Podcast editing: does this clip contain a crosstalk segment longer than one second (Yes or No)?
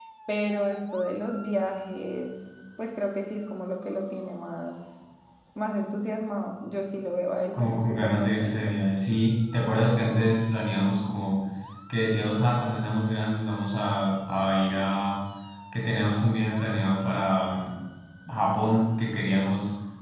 Yes